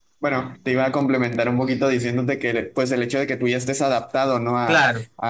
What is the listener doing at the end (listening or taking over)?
listening